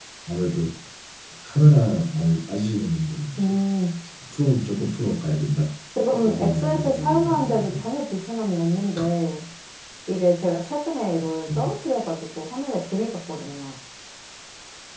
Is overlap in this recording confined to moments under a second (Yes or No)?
No